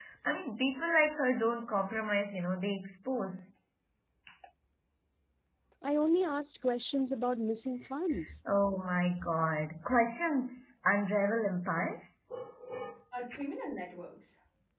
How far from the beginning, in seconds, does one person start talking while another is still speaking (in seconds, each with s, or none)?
none